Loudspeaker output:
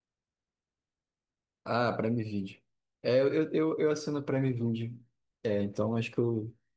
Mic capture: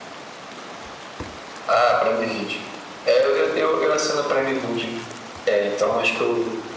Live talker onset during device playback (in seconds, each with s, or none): none